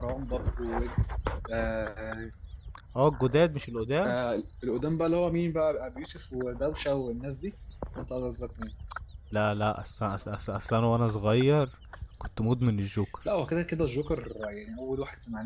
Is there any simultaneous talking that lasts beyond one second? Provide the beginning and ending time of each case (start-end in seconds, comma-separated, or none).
none